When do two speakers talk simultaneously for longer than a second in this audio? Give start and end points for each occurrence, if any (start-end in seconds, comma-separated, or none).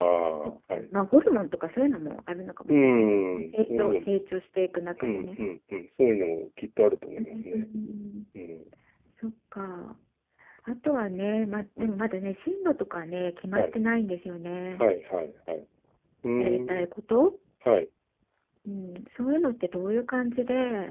2.7-4.0